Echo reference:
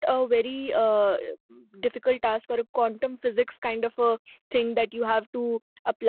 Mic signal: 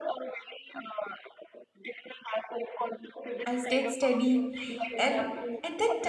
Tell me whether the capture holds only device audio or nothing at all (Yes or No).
No